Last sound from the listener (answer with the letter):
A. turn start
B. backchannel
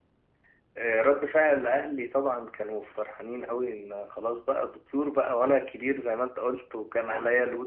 B